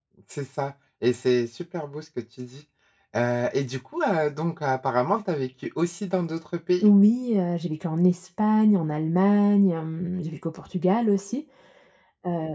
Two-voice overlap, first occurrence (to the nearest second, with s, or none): none